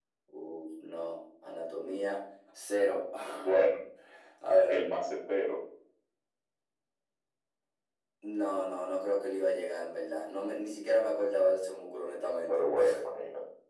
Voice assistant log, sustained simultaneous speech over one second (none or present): none